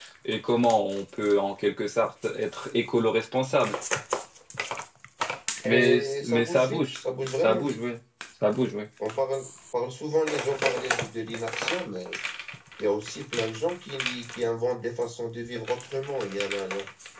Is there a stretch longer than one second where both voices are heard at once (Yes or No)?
Yes